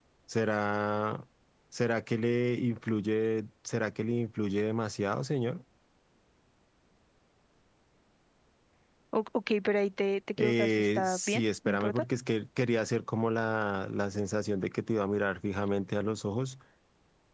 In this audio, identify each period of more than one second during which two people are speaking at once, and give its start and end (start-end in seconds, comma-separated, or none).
10.4-12.0